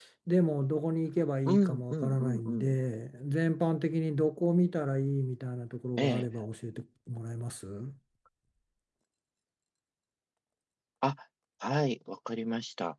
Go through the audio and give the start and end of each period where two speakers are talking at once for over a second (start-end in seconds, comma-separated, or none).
1.5-2.8